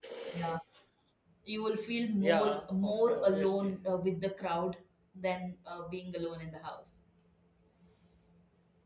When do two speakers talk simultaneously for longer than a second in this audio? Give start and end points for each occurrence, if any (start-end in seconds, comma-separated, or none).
2.2-3.7